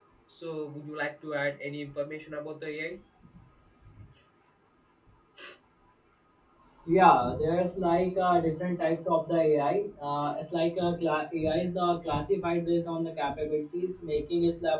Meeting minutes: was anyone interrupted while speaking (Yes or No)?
No